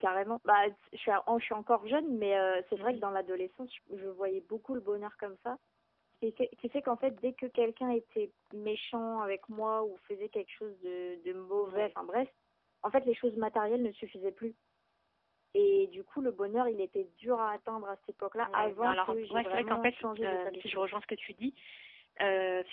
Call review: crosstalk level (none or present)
present